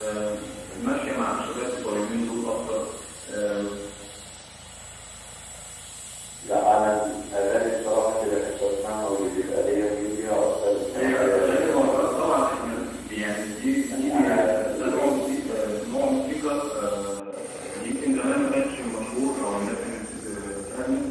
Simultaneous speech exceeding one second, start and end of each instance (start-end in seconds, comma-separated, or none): 10.9-12.9, 13.9-15.1